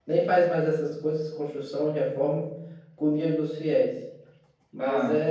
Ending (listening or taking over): listening